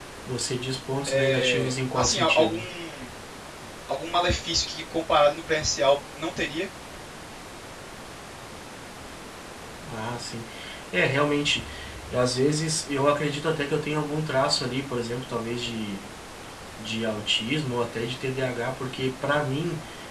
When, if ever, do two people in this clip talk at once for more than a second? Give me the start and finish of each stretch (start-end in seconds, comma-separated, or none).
1.1-2.6